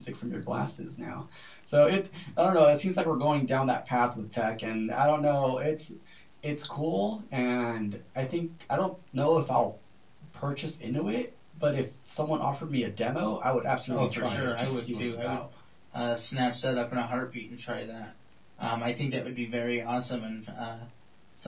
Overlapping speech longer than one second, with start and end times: 13.9-15.4

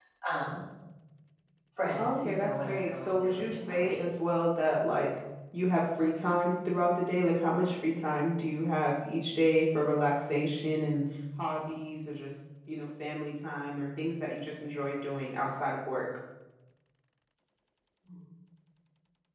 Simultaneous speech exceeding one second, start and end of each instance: 2.0-4.0

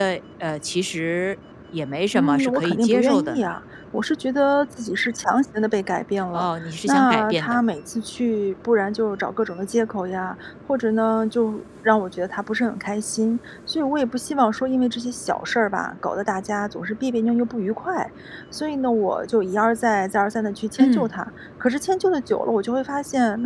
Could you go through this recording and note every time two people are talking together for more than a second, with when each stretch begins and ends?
2.1-3.5, 6.3-7.6

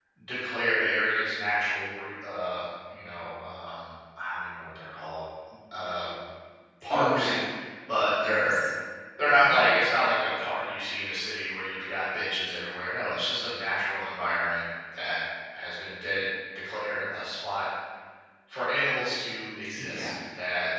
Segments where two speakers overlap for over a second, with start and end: none

